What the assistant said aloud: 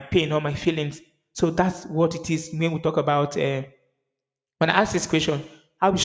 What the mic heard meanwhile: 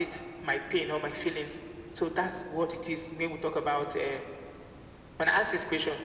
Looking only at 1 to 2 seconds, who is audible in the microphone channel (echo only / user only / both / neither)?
echo only